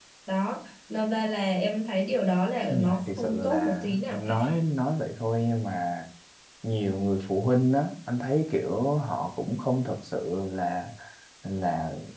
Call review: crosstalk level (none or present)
present